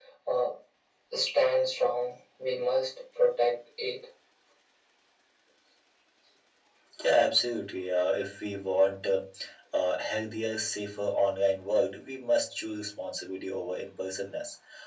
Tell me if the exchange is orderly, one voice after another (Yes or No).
Yes